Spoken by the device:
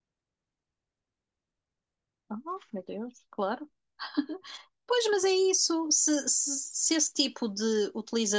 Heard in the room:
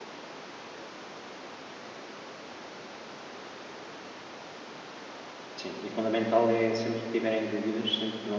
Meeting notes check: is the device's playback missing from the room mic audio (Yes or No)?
Yes